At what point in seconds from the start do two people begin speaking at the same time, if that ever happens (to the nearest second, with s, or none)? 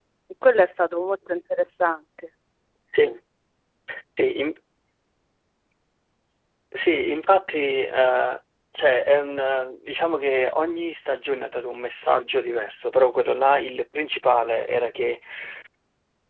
none